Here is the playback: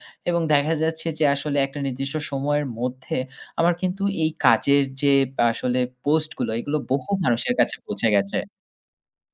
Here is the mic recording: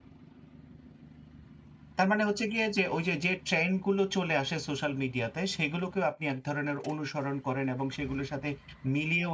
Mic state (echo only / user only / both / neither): user only